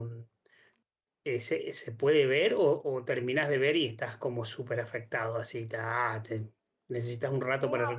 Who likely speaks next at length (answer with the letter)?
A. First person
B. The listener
B